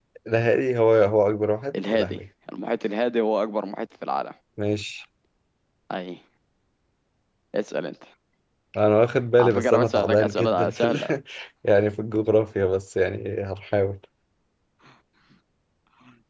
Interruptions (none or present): present